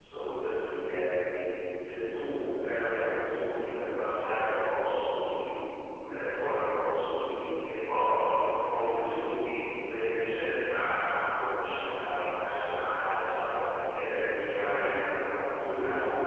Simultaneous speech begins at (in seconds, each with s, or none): 14.6 s